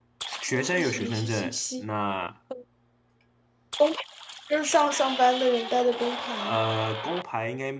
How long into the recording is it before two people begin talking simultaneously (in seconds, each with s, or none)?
0.5 s